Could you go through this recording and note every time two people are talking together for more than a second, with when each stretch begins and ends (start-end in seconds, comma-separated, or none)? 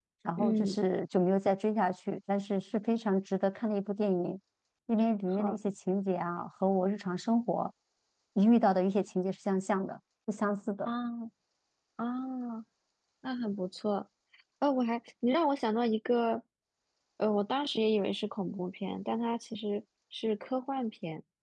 none